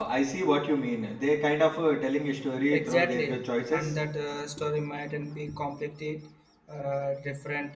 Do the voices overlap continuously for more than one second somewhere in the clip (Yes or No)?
Yes